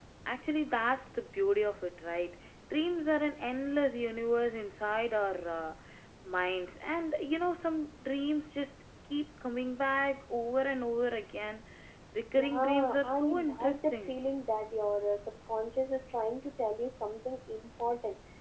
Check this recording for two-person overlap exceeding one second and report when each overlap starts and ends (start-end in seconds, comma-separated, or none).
12.2-14.2